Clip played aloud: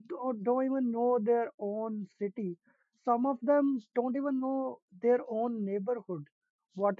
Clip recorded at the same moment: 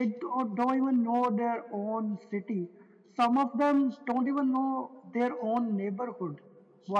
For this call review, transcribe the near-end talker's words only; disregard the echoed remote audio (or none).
none